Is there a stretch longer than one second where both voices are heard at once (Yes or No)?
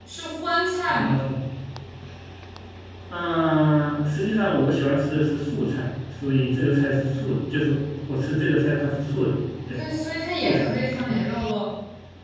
No